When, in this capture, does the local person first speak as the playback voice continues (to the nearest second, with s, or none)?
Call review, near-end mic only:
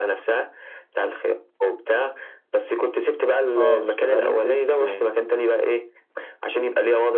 4 s